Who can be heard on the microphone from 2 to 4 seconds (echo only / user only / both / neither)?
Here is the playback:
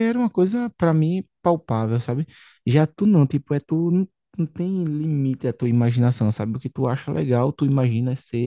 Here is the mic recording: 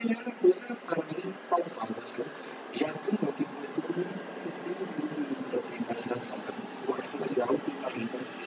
echo only